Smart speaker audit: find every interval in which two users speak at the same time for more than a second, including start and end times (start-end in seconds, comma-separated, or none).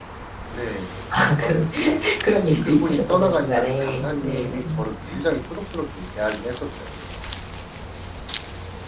2.6-4.6